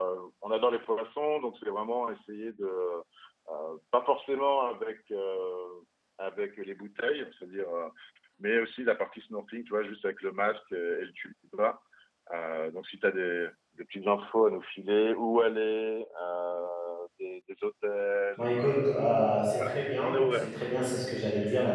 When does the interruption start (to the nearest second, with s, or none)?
18 s